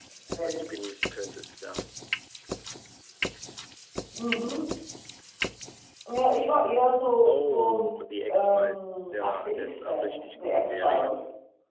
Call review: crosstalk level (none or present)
present